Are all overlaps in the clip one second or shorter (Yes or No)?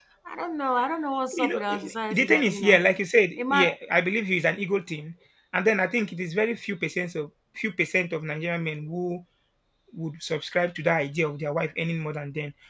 No